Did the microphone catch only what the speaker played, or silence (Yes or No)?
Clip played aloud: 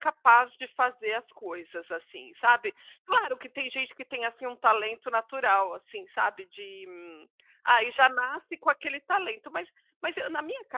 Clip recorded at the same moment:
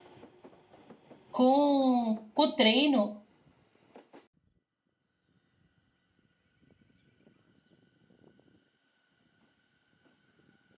No